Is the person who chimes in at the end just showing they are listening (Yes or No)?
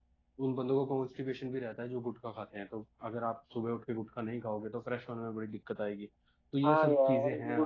No